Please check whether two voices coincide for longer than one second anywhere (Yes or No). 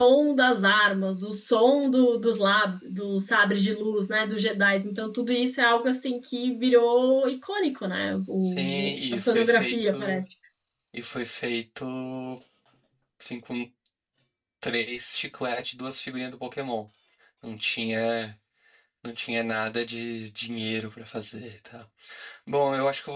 Yes